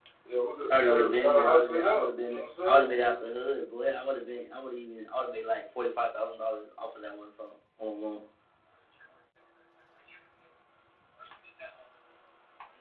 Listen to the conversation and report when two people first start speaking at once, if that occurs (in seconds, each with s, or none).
0.7 s